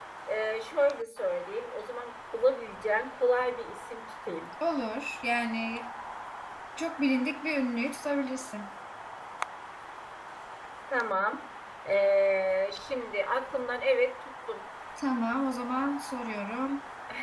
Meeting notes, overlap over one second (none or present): none